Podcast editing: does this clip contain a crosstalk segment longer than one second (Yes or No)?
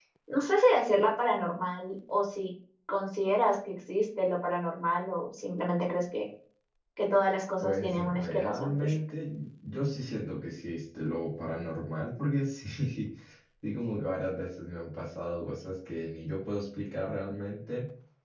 Yes